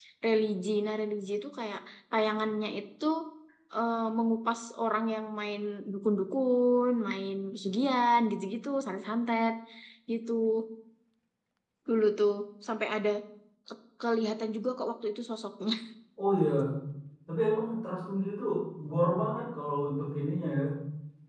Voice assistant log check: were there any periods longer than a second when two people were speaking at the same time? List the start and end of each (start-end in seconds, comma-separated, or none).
none